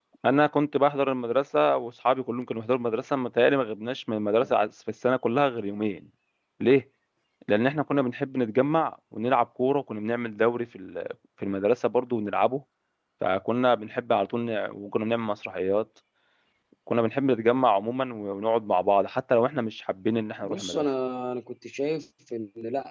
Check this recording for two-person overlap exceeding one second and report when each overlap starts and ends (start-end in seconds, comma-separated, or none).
none